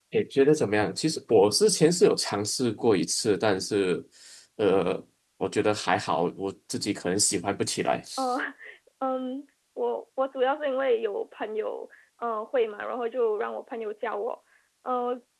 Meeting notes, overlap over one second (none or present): none